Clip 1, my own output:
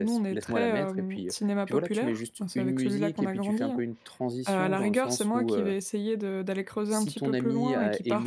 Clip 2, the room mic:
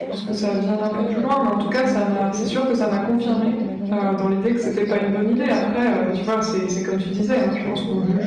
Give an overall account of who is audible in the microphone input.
both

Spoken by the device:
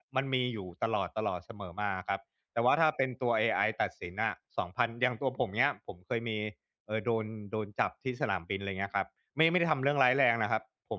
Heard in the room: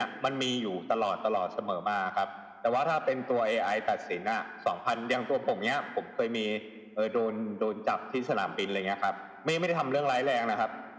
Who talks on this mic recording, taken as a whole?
echo only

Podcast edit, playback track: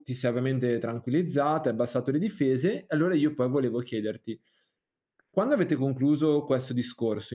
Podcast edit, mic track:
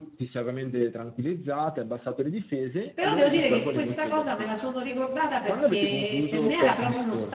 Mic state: both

